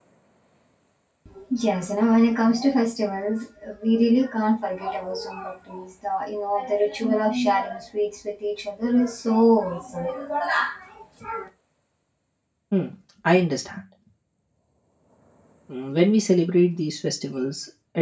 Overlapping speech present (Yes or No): No